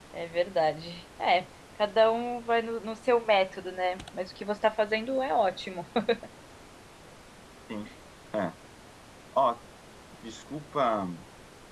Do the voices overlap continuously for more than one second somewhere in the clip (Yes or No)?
No